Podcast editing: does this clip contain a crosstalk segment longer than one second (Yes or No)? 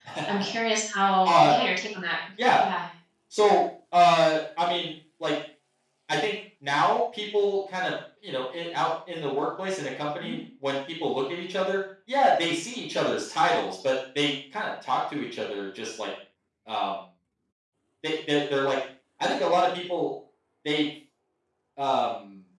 No